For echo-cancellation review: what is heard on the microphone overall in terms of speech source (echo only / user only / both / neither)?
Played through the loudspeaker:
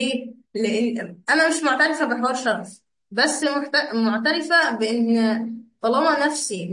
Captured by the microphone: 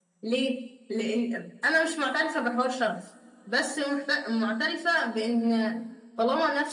echo only